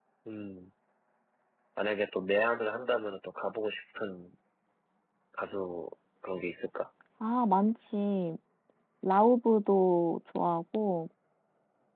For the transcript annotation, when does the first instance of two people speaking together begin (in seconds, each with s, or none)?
none